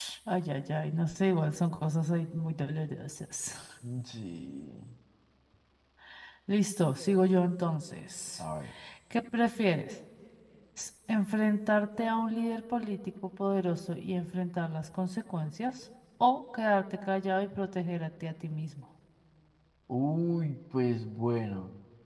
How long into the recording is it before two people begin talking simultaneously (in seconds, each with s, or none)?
none